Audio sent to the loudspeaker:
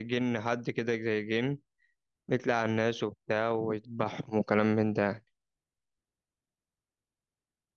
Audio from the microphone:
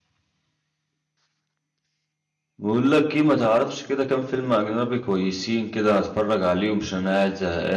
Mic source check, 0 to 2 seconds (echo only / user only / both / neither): neither